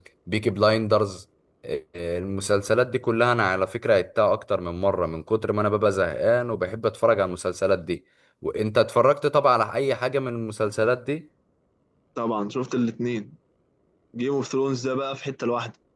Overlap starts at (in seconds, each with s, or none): none